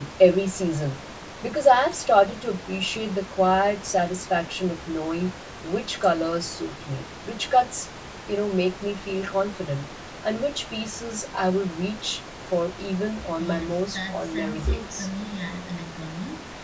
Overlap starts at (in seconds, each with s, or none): 13.4 s